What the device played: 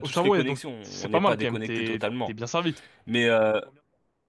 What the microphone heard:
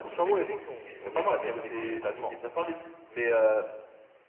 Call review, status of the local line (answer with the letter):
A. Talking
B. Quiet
A